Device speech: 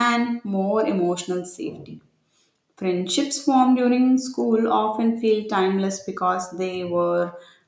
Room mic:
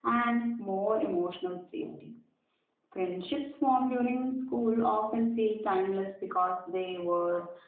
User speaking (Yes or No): No